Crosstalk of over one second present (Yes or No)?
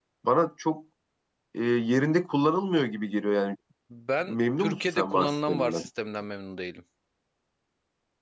Yes